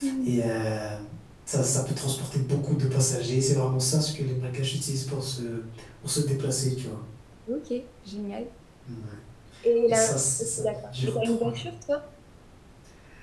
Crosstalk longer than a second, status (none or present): present